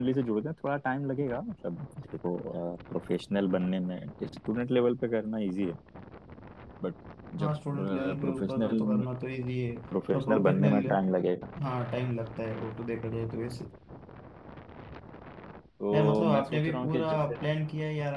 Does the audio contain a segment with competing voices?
Yes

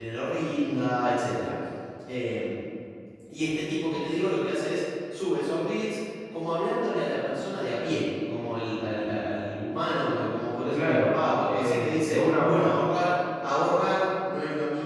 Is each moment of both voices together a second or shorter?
No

